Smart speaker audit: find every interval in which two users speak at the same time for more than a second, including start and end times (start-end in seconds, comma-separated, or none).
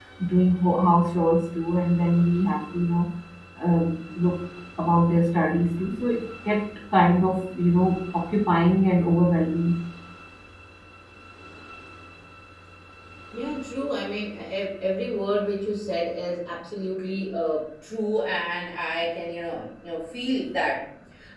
none